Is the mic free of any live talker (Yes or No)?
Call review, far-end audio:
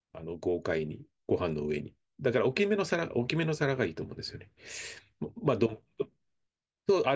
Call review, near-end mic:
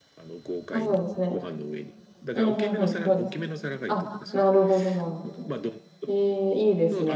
No